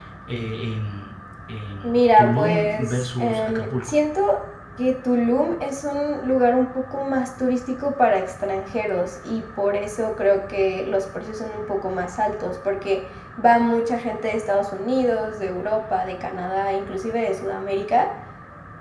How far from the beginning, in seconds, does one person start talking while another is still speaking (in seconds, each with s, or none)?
1.8 s